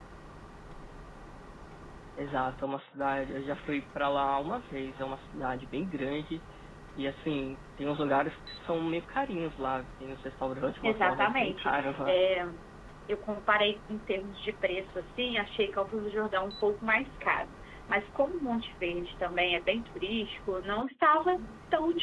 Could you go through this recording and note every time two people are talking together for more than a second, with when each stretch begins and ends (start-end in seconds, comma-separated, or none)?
10.8-12.2